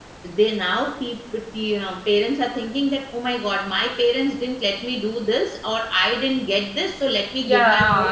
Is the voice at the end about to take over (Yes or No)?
Yes